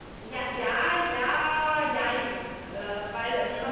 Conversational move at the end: listening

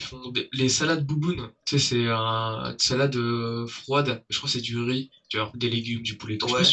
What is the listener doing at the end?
taking over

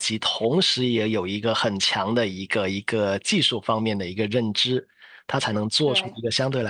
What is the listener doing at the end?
listening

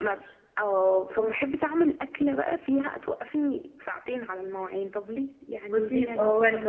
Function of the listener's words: taking over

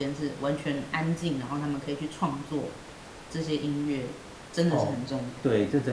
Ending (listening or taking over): taking over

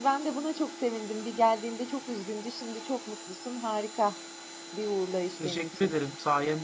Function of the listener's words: taking over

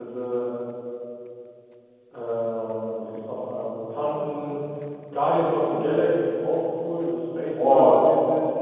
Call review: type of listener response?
taking over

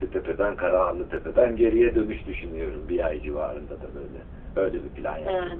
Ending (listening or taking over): taking over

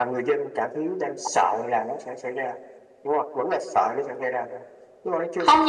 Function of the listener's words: taking over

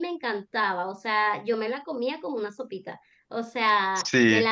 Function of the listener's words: listening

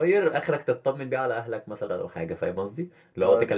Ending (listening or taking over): listening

